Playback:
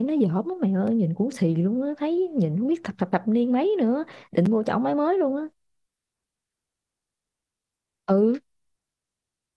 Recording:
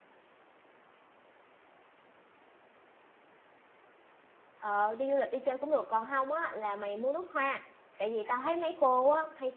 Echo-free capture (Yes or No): Yes